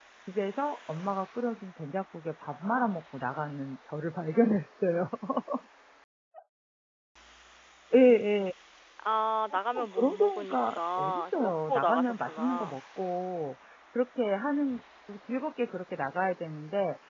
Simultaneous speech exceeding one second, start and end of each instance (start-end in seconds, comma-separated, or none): 9.5-12.8